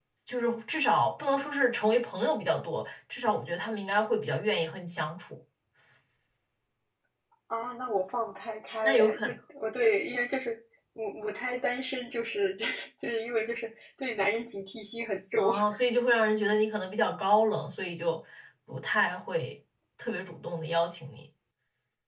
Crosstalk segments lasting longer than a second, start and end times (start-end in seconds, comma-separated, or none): none